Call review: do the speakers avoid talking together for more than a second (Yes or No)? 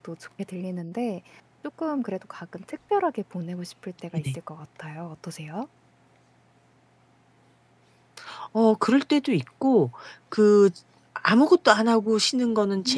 Yes